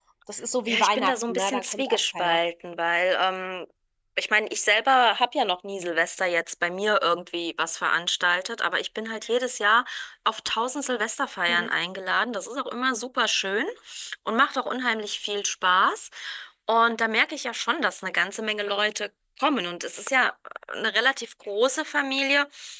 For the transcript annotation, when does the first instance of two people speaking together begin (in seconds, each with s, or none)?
0.7 s